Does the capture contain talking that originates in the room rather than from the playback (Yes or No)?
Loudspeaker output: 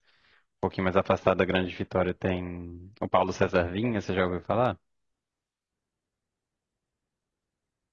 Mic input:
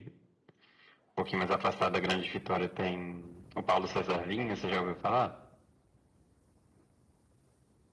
No